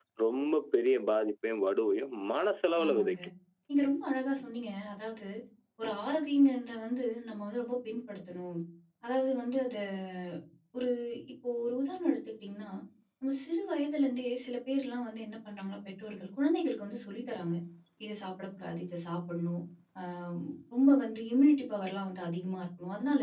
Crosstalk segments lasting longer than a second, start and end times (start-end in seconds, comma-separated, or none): none